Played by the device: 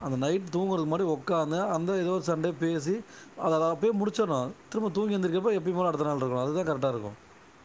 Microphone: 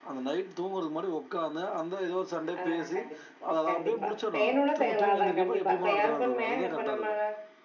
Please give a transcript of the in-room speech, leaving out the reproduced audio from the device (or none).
ஆ கண்டிப்பா கண்டிப் பா செய்யனுனா செய்யலா அதா கண்டிப்பா இப்ப எ ஹஸ்பண்டுமே இப்ப நம்ப